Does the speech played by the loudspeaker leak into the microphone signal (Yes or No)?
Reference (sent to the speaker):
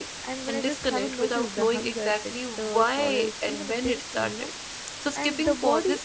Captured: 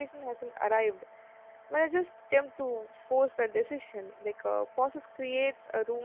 No